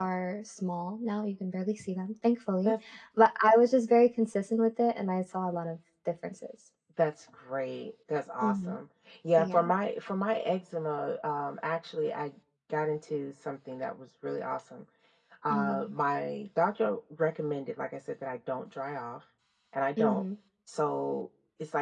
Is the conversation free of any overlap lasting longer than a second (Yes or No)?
Yes